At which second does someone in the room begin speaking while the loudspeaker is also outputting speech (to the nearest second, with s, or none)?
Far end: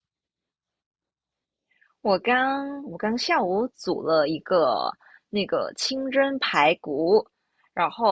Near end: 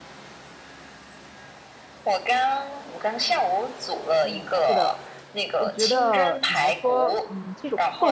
4 s